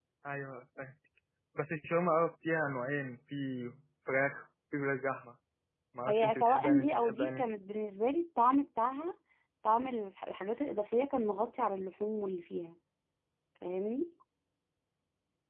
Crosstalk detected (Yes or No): Yes